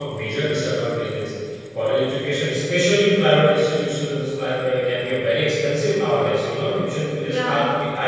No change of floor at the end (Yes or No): Yes